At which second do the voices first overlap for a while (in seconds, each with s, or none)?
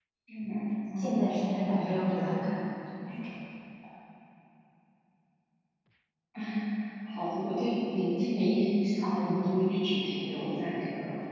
1.0 s